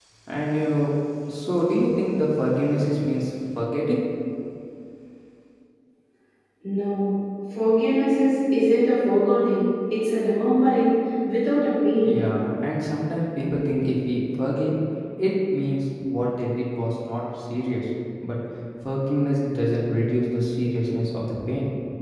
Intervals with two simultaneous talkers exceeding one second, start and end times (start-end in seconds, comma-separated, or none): none